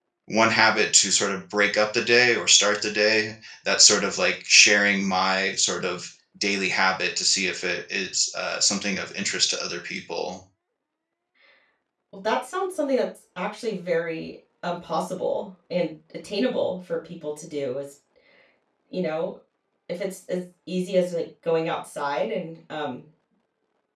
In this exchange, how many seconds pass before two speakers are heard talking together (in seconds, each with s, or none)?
none